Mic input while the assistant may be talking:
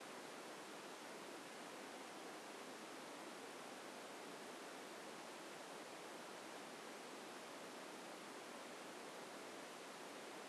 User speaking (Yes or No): No